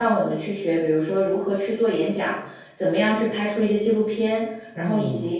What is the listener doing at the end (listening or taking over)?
listening